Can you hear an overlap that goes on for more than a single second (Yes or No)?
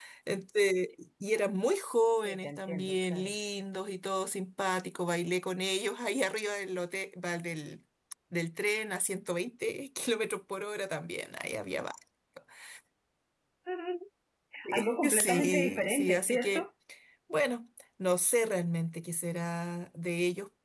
Yes